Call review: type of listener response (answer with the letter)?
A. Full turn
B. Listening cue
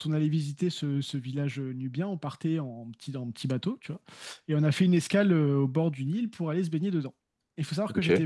B